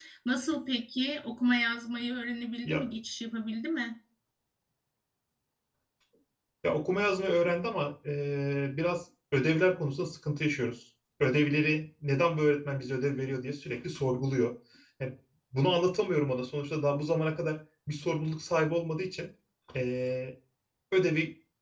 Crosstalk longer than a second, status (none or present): none